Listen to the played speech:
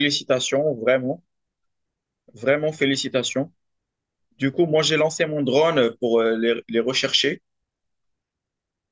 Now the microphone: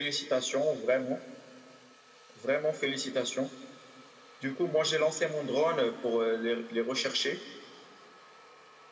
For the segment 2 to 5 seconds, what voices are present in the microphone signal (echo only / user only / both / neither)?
echo only